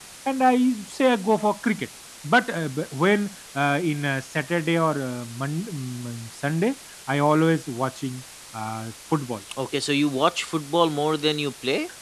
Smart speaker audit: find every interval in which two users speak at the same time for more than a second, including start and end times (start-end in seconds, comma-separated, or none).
none